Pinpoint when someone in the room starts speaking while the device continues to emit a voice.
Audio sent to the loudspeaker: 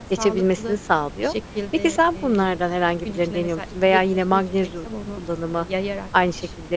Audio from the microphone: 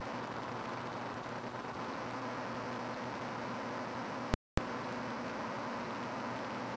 none

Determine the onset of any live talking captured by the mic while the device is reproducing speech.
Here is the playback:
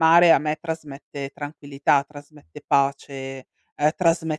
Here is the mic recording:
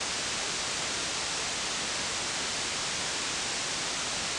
none

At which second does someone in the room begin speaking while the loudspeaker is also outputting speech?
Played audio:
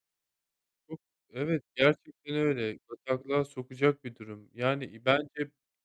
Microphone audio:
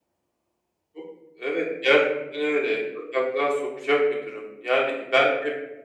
none

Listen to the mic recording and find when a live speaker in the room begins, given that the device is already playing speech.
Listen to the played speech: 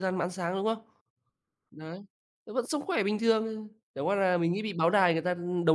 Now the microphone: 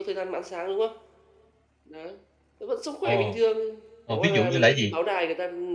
3.0 s

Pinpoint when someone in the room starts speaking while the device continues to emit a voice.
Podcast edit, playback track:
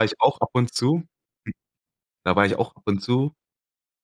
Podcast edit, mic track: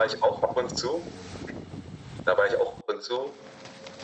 none

